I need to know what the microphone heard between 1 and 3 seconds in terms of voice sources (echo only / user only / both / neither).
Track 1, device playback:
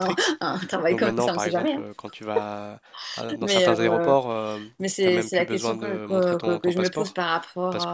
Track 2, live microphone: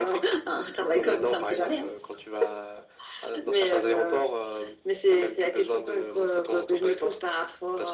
echo only